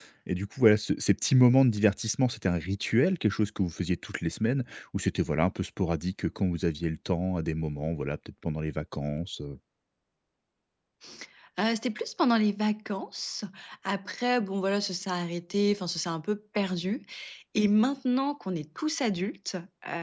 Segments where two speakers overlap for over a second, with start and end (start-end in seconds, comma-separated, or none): none